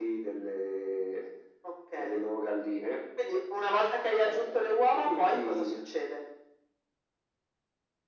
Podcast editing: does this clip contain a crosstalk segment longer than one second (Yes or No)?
Yes